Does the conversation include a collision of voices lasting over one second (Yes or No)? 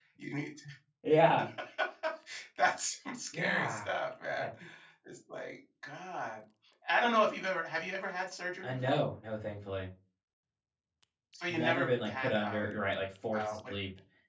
Yes